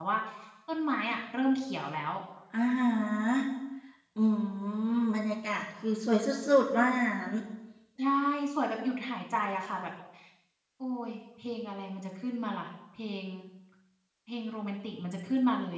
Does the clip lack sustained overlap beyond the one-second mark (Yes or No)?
Yes